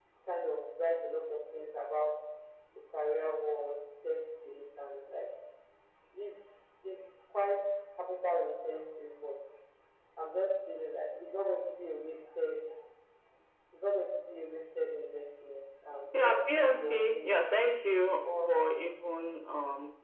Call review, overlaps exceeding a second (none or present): present